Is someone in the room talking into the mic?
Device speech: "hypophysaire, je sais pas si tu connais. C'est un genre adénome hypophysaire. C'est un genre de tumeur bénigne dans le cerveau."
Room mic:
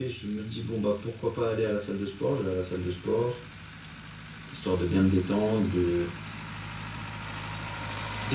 Yes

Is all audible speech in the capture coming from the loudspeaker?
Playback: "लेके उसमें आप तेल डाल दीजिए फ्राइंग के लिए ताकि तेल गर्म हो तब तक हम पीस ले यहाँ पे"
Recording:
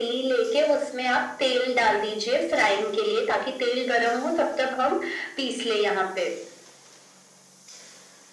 Yes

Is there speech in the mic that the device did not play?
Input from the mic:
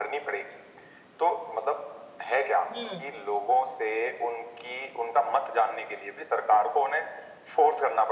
Yes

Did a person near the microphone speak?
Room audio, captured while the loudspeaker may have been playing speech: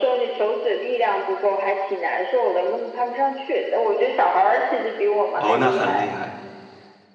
Yes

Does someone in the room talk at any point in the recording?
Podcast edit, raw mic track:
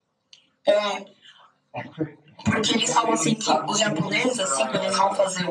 No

